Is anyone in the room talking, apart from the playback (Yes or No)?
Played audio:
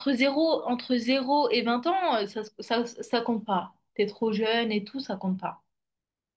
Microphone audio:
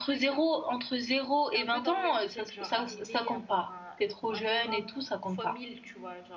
Yes